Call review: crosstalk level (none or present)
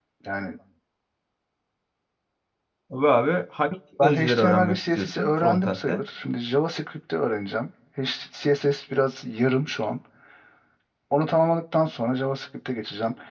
present